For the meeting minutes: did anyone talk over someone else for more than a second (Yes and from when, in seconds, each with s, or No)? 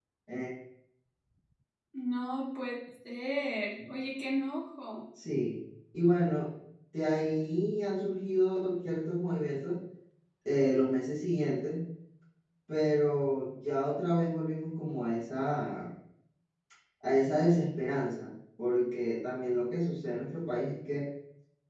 No